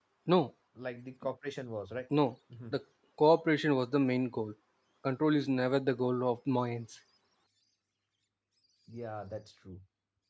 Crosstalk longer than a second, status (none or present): none